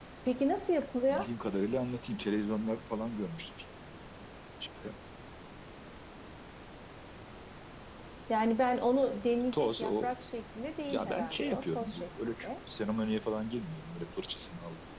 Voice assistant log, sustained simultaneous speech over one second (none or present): present